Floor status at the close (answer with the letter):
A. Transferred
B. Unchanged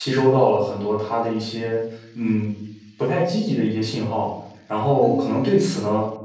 B